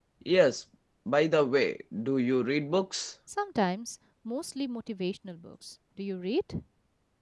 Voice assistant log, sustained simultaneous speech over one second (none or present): none